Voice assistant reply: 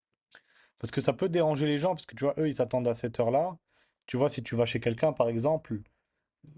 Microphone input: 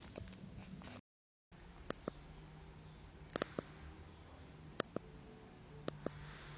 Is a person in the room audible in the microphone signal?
No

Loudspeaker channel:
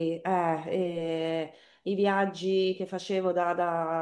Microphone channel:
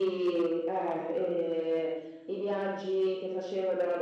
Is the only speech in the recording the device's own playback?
Yes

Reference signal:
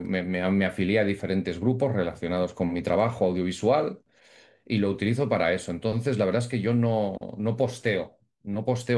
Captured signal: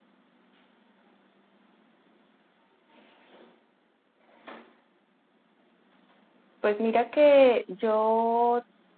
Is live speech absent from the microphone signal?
No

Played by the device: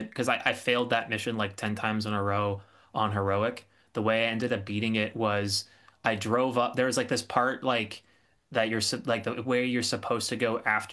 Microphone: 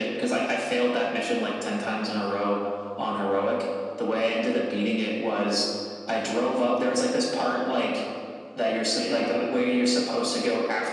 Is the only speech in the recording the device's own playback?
No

